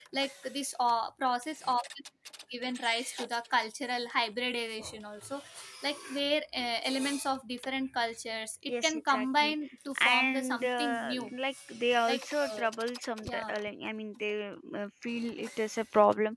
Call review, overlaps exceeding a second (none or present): present